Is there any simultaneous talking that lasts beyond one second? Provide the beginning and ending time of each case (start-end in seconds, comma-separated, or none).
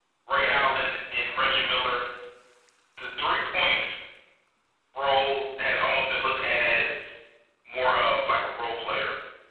none